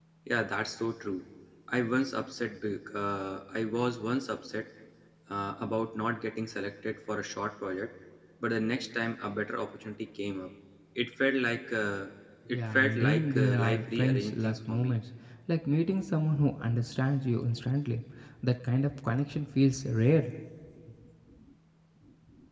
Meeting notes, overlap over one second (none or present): present